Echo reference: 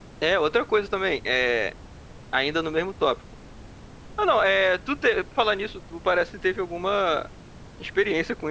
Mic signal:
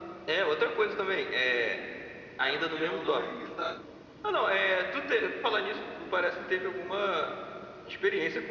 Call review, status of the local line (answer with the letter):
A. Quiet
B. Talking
B